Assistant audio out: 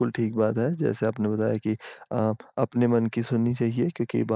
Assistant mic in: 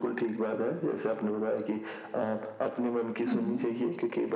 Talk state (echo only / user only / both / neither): both